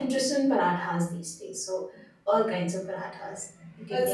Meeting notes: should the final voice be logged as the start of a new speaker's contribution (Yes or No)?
Yes